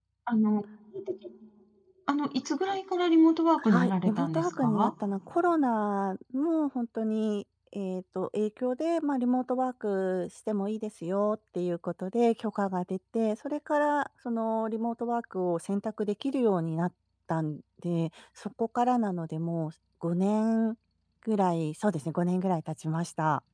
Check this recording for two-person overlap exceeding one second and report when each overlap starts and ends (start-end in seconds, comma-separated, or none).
3.7-4.9